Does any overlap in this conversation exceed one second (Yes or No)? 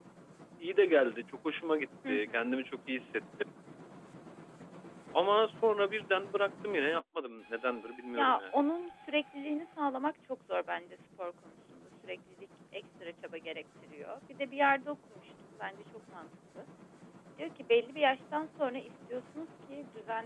No